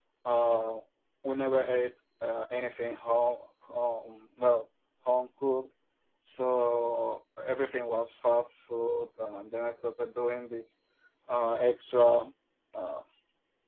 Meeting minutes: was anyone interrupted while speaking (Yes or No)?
No